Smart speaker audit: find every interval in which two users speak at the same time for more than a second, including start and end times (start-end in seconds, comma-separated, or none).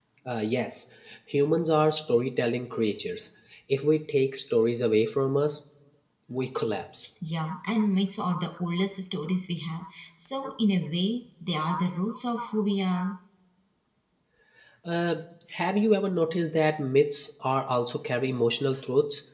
none